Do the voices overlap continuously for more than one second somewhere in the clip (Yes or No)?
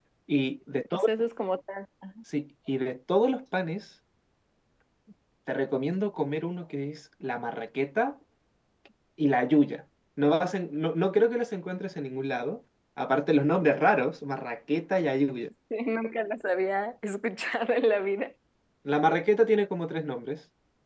No